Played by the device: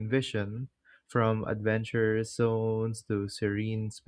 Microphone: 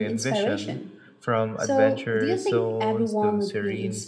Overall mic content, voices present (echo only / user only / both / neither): both